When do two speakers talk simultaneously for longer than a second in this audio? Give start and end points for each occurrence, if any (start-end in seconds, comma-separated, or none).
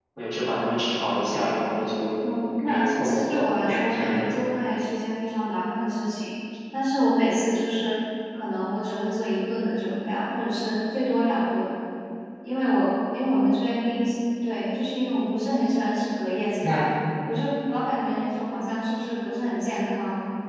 2.7-4.2